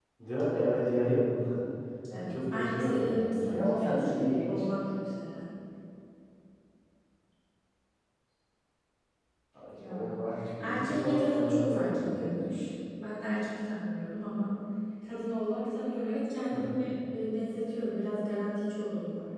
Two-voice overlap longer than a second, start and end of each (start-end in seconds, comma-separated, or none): 2.1-4.7, 10.6-12.4